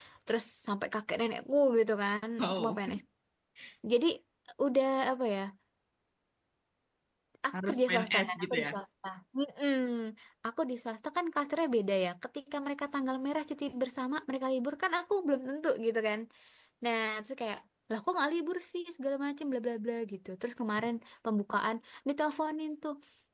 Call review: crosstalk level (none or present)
present